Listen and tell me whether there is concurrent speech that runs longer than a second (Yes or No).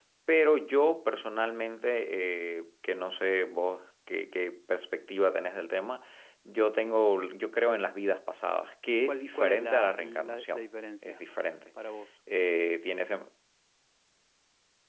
Yes